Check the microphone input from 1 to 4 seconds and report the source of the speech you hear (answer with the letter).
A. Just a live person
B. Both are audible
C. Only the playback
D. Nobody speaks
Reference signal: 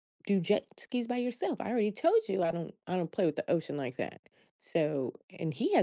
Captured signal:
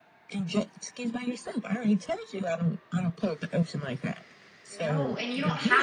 C